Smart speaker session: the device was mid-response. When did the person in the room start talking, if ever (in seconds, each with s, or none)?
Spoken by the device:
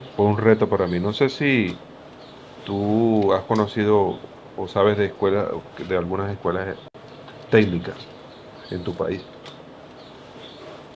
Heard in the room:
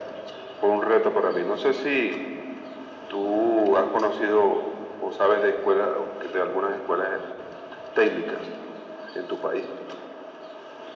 none